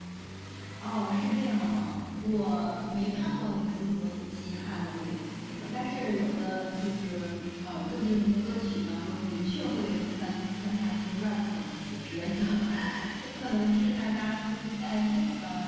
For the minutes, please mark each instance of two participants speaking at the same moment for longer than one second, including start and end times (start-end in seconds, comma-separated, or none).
none